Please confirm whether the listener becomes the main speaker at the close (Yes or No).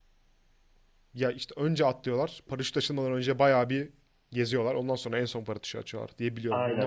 Yes